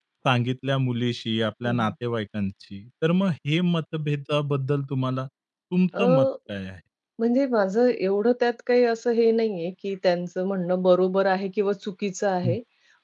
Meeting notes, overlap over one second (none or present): none